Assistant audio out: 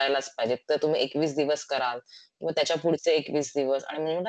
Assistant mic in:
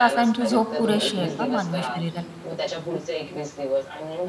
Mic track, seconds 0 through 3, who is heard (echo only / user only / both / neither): both